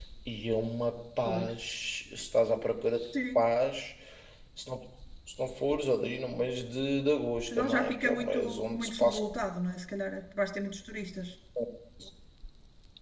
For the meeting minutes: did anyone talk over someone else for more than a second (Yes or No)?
Yes